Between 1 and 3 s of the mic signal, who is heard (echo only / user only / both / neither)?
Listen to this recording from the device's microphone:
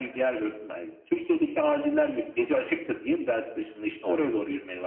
echo only